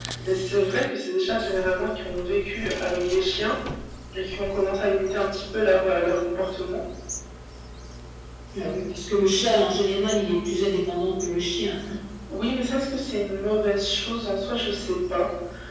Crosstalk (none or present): none